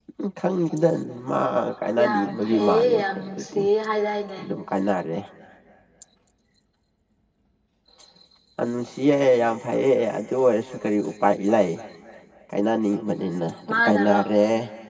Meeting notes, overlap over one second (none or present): present